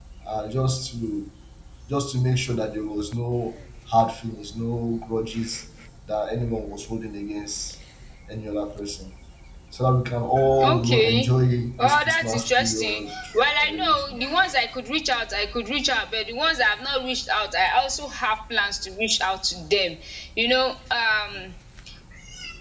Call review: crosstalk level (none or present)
present